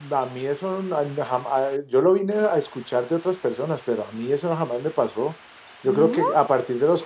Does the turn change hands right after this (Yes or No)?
No